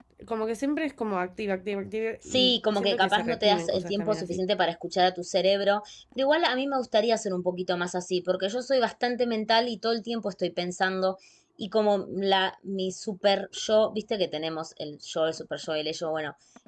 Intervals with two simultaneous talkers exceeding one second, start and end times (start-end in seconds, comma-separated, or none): 2.3-4.4